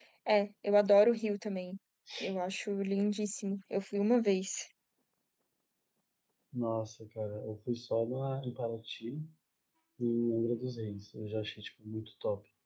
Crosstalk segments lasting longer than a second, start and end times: none

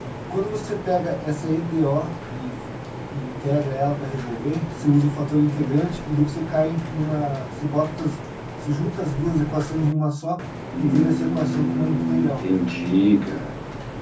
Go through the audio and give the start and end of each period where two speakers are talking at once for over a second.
10.8-12.3

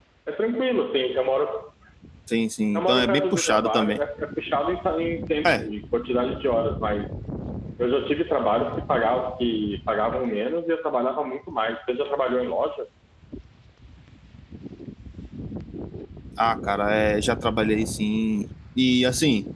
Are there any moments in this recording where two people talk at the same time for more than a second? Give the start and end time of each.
2.7-4.0

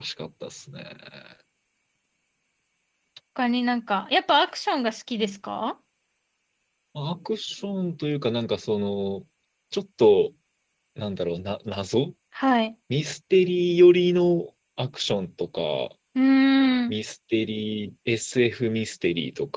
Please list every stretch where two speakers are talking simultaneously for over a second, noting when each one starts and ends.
none

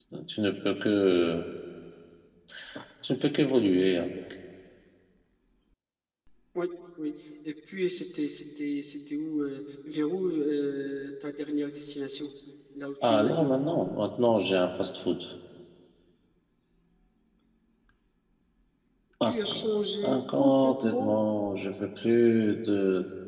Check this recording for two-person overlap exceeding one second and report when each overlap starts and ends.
20.0-21.2

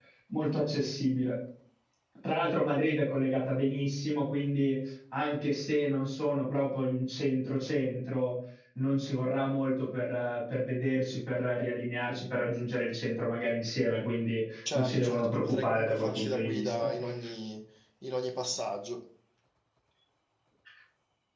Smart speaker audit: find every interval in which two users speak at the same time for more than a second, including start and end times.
14.7-16.9

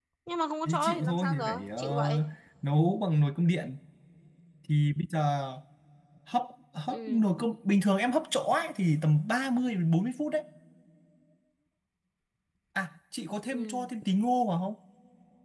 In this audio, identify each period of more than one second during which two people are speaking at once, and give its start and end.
0.6-2.2

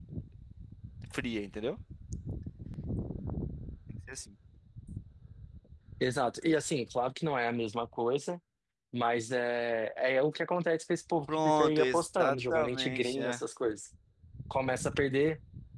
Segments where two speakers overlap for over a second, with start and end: 11.3-13.4

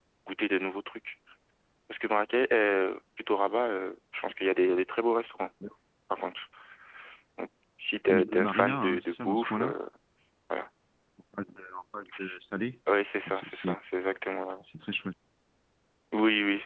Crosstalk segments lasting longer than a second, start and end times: 8.1-9.7

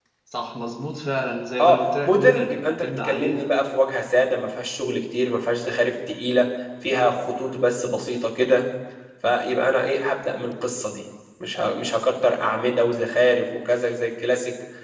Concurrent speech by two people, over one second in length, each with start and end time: 1.6-3.5

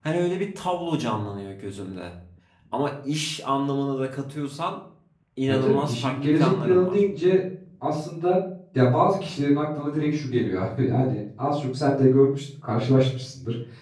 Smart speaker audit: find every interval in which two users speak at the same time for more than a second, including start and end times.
5.5-7.0

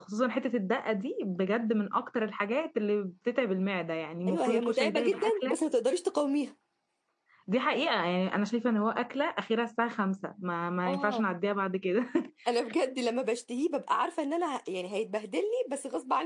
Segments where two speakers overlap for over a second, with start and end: 4.3-5.6

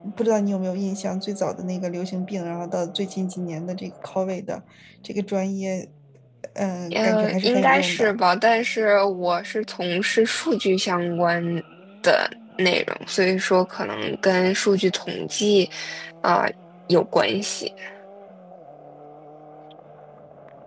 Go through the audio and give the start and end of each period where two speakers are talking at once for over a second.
6.9-8.1

